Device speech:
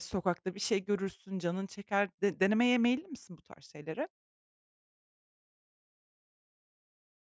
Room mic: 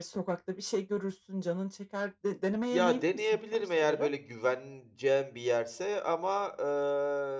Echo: present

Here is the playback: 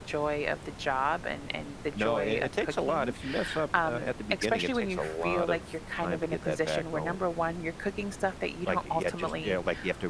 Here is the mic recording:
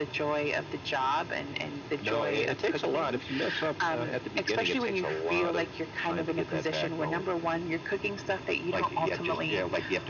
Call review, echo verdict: present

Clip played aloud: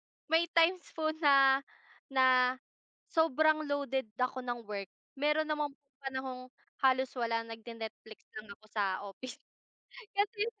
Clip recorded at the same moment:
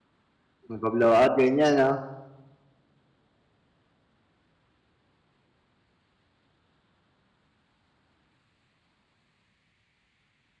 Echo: none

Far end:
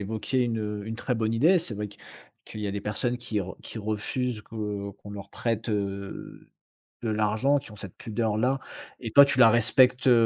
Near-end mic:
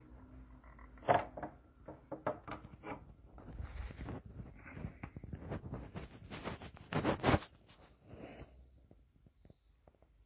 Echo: none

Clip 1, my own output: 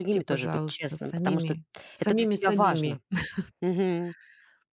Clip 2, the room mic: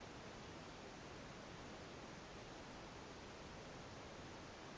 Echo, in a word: none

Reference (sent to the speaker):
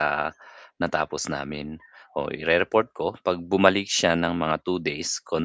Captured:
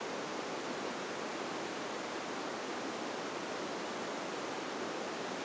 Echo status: none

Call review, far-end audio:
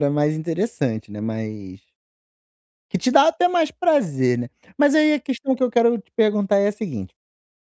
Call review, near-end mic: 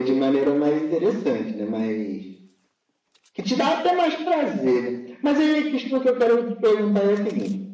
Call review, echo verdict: present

